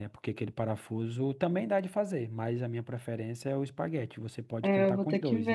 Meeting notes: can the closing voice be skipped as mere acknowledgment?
No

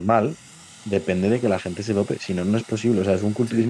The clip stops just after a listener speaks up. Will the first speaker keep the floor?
Yes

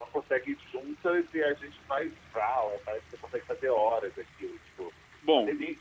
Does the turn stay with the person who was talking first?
No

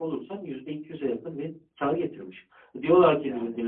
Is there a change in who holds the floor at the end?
No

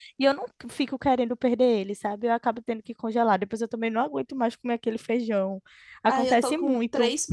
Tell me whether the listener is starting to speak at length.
Yes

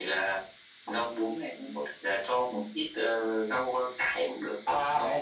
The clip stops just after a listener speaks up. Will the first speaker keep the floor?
No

